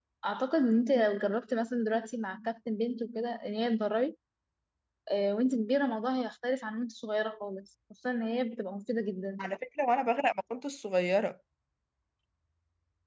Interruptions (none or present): none